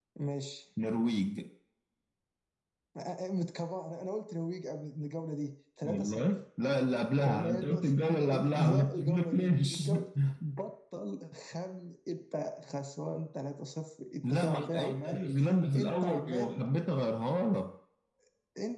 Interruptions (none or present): present